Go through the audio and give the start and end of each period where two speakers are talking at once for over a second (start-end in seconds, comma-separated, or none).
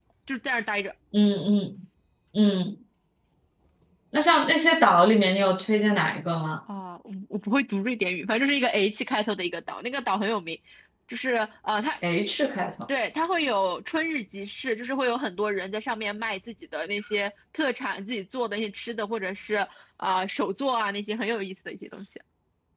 none